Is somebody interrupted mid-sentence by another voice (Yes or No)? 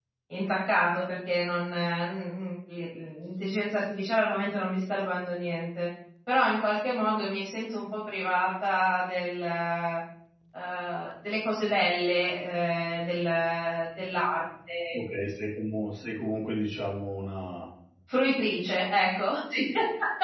No